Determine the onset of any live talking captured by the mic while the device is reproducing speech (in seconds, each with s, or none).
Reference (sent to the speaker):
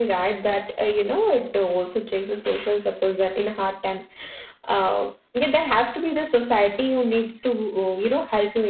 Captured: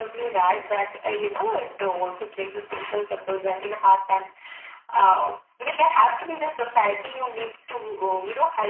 none